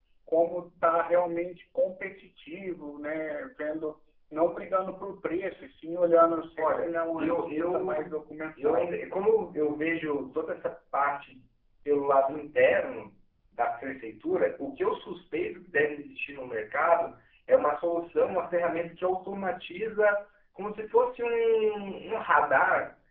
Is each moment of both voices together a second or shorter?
No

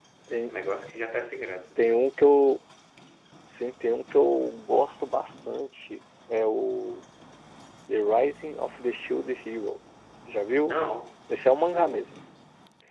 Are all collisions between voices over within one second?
Yes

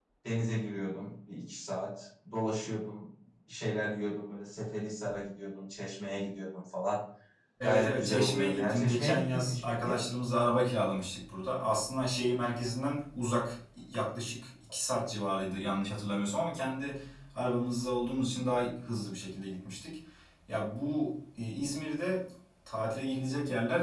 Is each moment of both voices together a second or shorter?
No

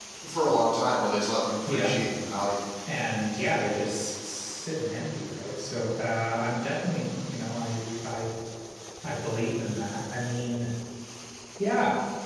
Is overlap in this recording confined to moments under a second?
Yes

